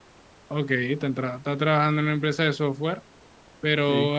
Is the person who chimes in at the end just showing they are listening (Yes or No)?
Yes